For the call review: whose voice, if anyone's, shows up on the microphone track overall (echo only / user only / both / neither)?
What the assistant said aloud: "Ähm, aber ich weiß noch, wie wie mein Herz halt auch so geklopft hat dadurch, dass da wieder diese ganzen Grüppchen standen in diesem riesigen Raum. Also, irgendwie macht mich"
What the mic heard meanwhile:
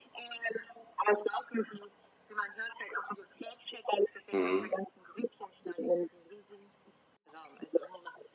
both